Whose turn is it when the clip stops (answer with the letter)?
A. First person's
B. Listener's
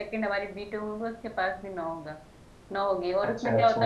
A